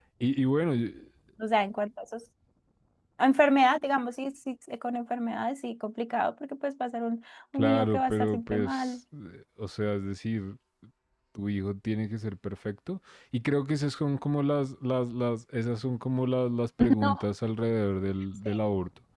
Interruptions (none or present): present